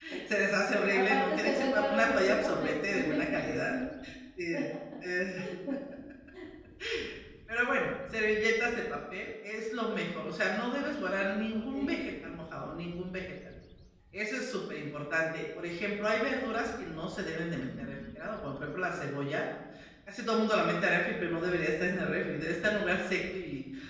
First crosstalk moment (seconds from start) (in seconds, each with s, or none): 0.9 s